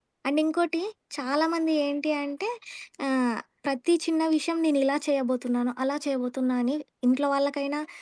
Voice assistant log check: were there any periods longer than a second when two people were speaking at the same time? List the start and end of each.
none

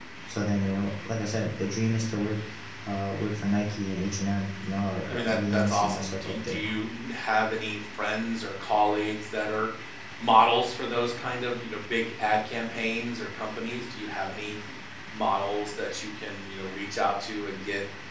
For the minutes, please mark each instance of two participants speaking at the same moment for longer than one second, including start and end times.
5.1-6.6

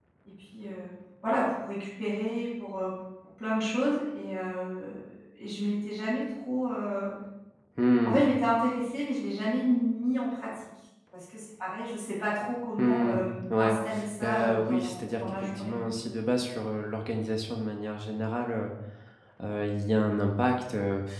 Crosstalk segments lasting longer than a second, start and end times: 14.2-15.8

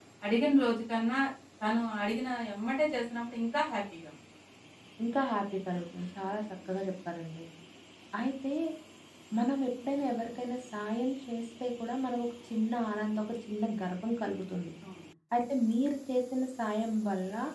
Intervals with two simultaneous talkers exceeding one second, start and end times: none

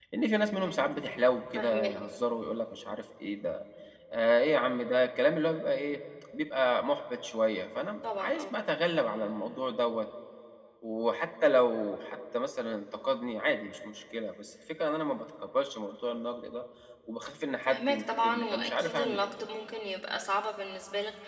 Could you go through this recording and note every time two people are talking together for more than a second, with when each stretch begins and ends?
17.7-19.3

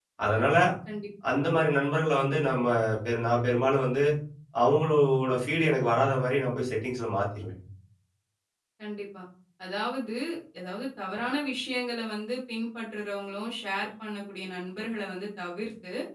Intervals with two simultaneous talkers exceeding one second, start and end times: none

